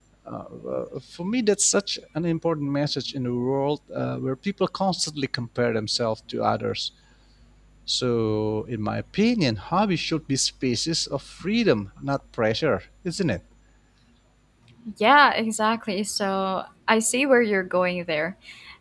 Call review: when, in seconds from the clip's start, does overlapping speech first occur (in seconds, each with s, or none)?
none